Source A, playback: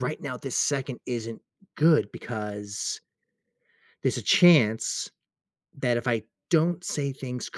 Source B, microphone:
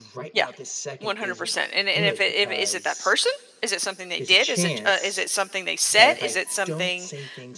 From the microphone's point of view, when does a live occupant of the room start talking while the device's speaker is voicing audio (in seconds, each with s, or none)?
0.3 s